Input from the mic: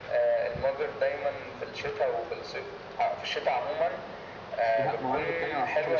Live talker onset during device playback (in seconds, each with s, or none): 4.8 s